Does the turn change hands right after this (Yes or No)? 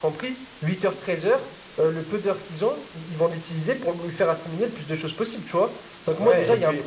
Yes